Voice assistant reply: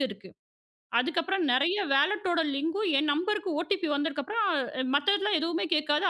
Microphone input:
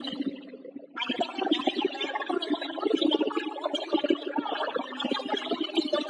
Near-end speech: none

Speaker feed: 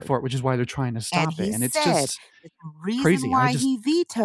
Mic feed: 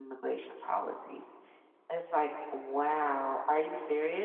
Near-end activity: present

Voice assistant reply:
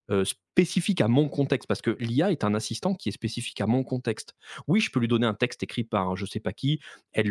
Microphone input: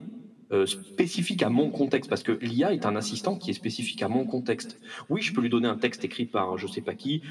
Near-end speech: none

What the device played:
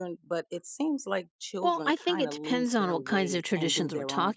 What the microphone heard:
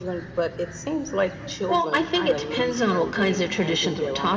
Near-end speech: none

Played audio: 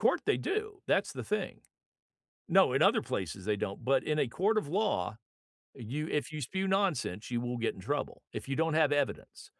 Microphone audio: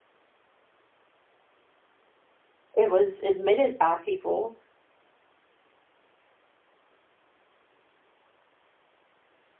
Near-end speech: present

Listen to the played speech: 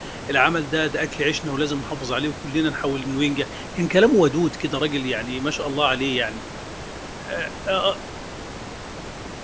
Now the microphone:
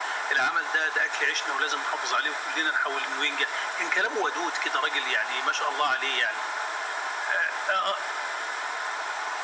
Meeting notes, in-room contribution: none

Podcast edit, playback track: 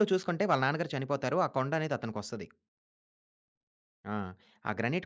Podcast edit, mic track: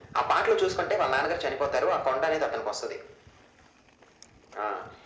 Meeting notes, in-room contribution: none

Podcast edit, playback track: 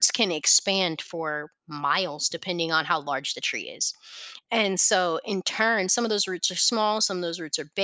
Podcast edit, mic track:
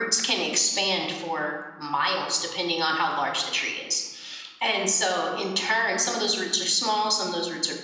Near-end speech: none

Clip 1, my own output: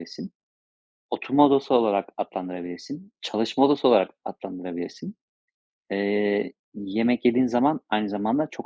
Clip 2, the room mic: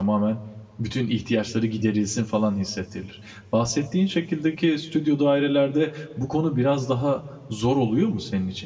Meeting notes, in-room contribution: present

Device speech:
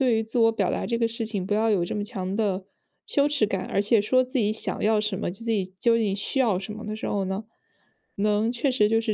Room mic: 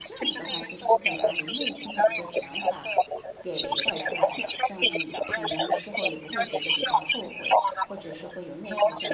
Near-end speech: present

